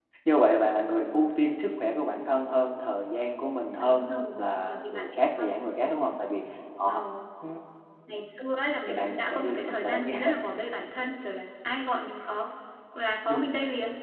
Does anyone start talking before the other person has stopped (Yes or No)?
Yes